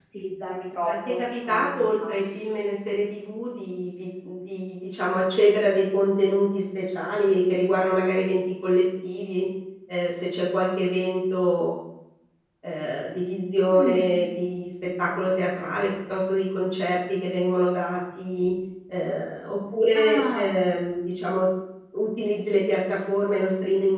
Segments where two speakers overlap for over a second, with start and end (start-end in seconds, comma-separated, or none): 0.9-2.4